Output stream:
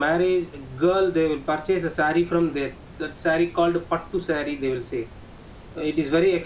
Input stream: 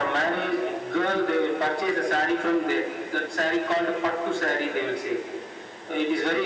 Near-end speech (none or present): none